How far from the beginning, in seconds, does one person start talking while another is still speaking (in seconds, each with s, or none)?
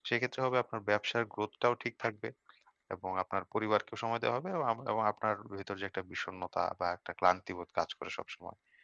none